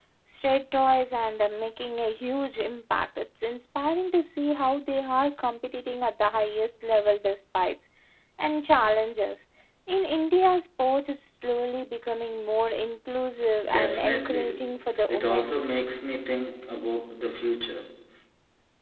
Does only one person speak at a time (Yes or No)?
No